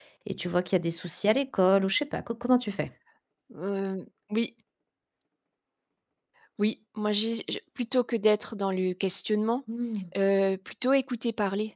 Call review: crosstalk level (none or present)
none